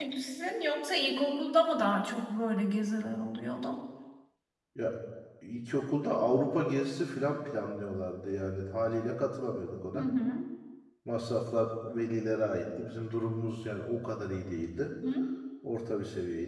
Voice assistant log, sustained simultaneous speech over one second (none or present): none